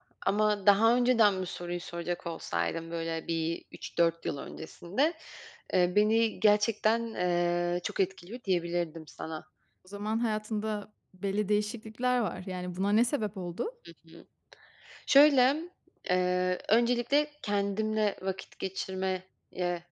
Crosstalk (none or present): none